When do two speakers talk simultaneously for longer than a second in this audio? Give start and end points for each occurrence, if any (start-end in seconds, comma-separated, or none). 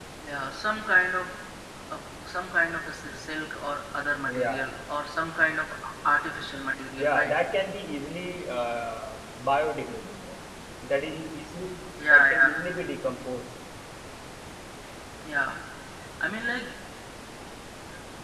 none